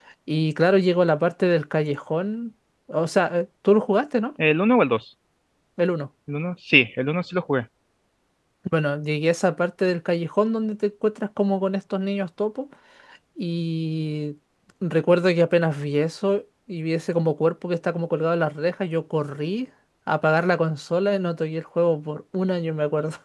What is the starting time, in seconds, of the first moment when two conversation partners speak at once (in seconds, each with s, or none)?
none